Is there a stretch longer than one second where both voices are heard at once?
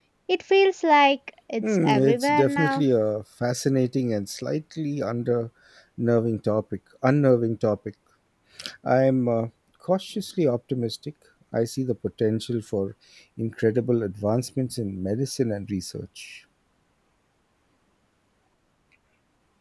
Yes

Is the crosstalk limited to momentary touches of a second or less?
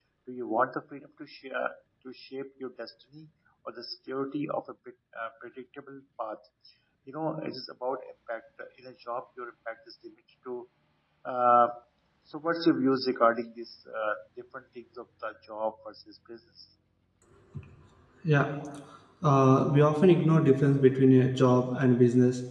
Yes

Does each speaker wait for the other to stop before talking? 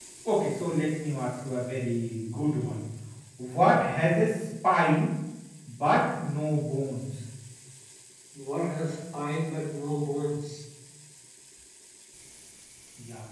Yes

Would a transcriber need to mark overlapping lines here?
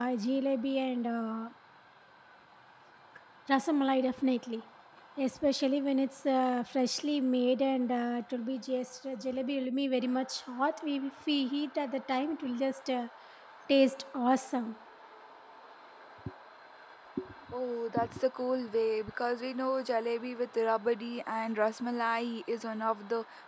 No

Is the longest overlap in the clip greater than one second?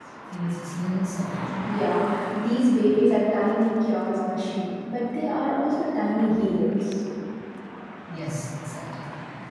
No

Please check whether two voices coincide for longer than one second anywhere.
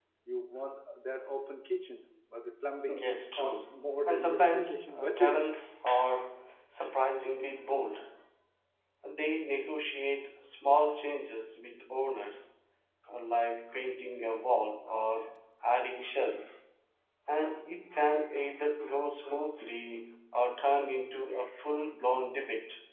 Yes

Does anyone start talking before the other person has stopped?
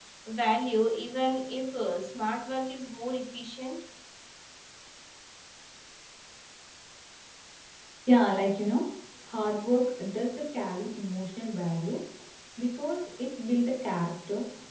No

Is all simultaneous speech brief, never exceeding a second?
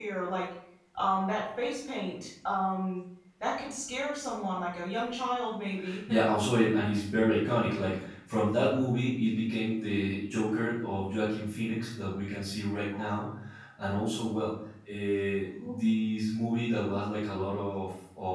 Yes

